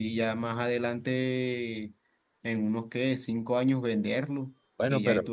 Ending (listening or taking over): listening